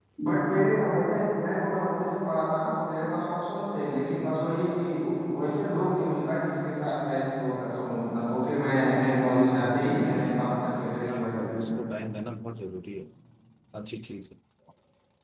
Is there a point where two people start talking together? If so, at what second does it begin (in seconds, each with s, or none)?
9.4 s